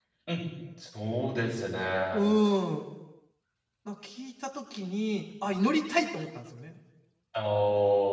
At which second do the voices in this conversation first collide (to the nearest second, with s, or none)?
none